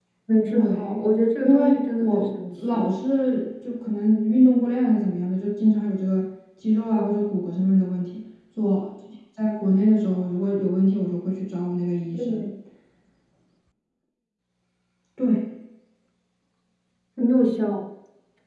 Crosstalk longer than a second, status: present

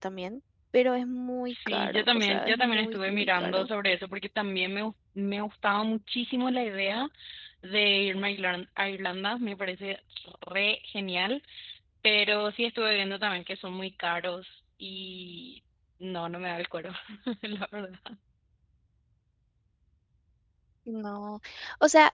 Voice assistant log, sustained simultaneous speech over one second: present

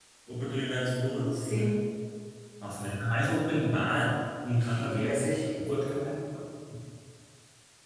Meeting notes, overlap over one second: present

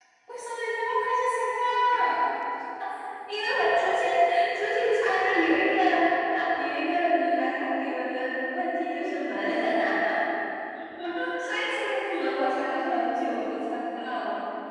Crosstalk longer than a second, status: none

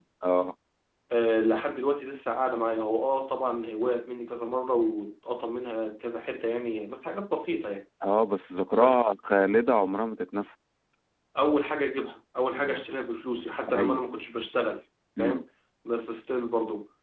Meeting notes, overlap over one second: none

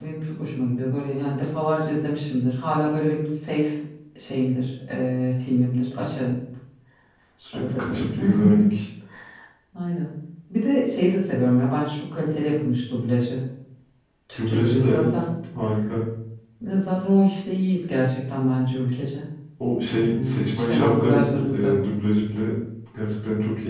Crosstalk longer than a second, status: present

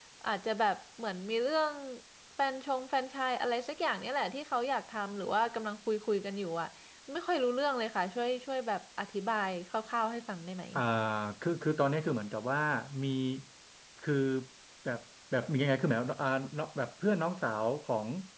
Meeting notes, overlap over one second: none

